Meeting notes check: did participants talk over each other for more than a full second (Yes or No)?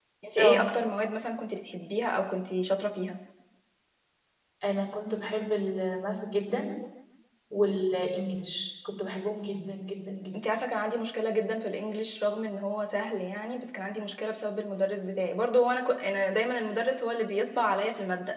No